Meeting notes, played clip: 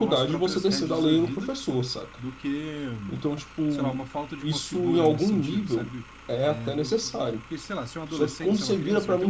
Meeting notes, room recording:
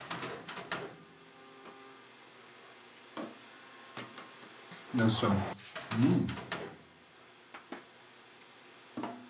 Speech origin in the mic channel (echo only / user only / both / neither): user only